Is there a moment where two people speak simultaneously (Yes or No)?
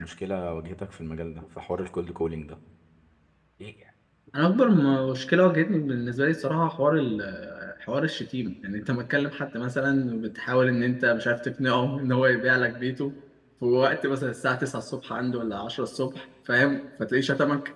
No